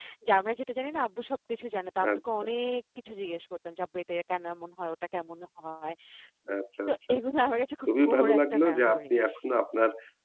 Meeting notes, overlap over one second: present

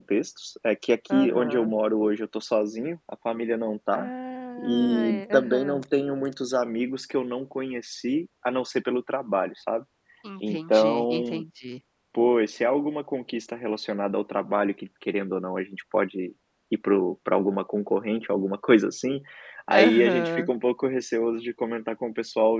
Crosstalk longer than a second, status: present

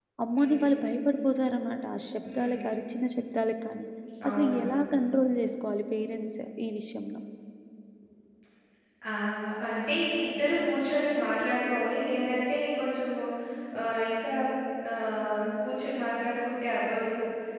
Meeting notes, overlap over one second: none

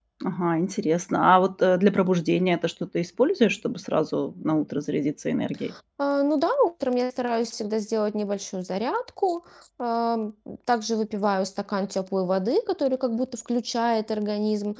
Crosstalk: none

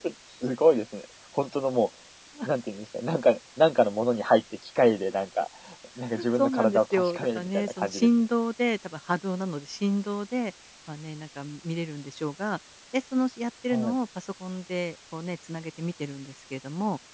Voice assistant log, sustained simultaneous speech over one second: present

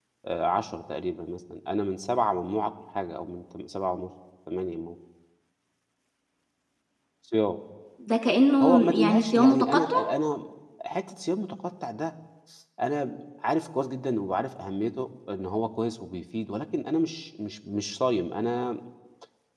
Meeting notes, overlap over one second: present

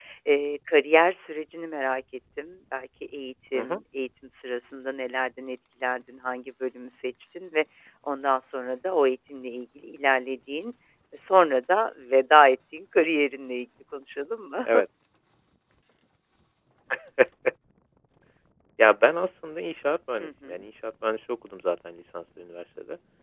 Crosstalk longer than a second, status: none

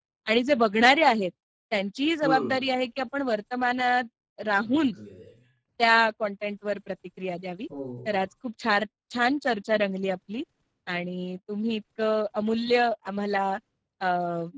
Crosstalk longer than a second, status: none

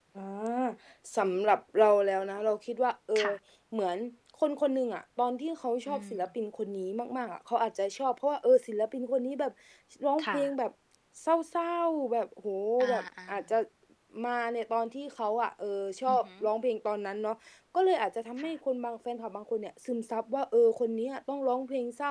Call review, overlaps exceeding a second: none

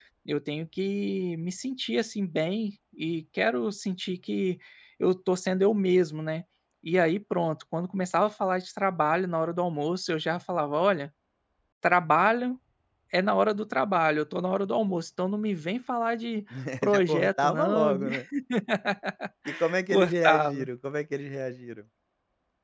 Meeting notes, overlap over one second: present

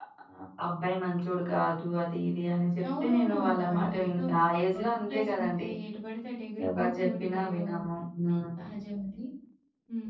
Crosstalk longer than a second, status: present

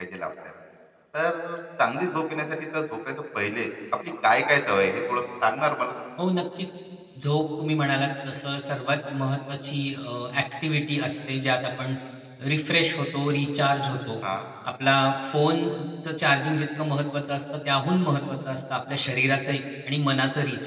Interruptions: none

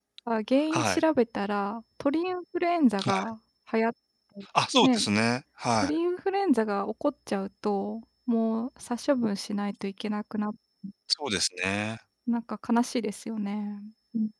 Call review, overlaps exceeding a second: none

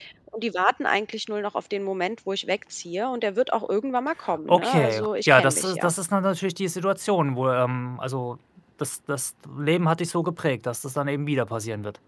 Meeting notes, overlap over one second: present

